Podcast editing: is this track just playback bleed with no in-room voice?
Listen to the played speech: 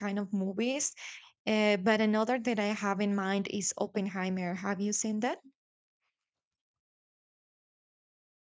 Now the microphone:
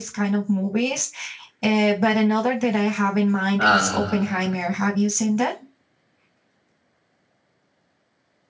No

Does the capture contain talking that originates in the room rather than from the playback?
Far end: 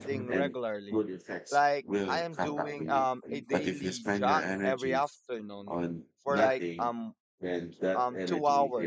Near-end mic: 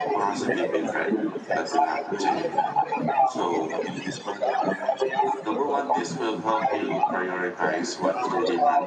Yes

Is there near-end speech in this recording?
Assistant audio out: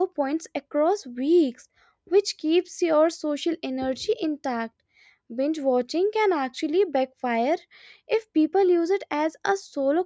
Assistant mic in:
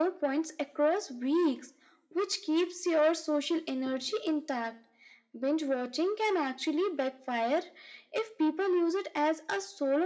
No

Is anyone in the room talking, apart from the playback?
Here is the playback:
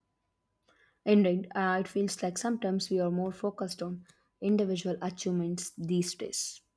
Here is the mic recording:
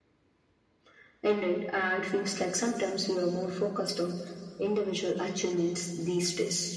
No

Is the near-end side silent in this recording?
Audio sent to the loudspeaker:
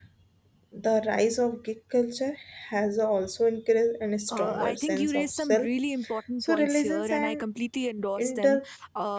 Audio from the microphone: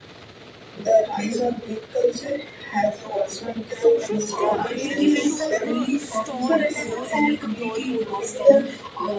No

